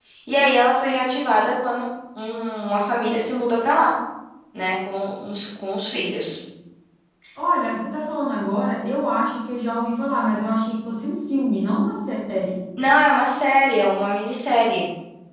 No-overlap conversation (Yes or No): Yes